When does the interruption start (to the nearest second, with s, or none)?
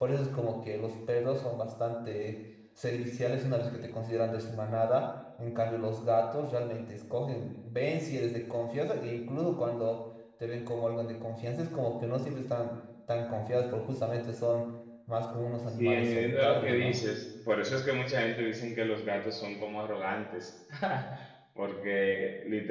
16 s